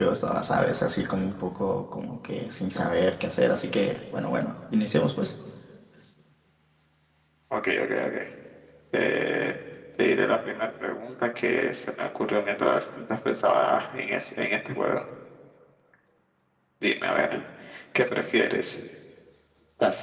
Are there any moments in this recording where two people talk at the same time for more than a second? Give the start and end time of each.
none

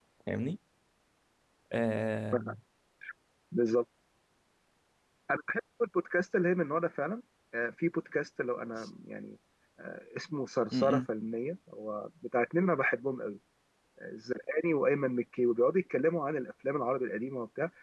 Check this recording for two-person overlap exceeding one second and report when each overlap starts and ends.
none

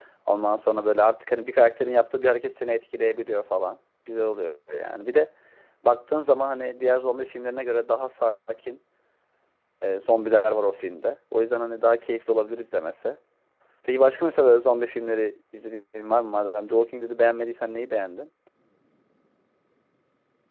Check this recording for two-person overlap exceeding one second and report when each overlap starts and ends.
none

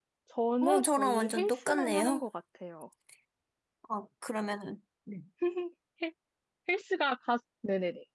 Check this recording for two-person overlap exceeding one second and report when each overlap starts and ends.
0.6-2.2

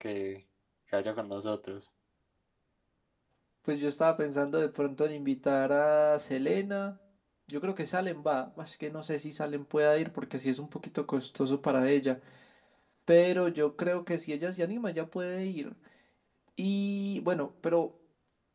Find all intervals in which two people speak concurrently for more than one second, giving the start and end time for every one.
none

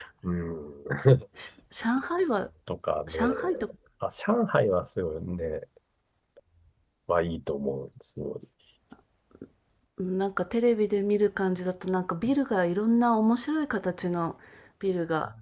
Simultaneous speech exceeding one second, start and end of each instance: none

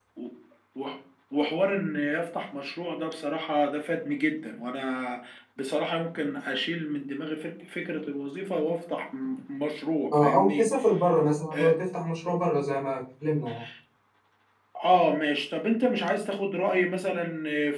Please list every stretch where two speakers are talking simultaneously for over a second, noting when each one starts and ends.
none

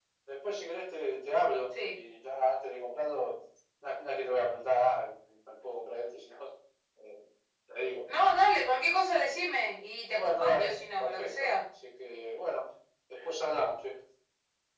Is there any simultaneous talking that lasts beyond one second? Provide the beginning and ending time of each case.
10.2-11.5

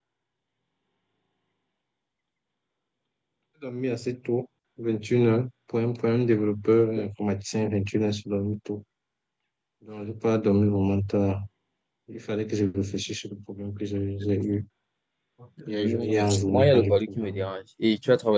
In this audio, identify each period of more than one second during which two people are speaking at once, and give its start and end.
15.7-17.5

